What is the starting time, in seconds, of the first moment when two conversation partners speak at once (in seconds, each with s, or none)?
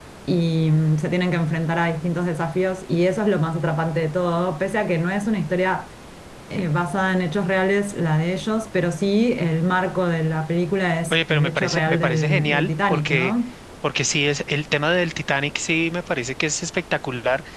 11.1 s